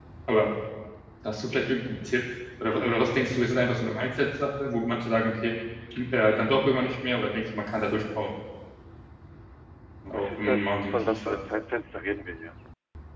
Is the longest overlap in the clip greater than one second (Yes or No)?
Yes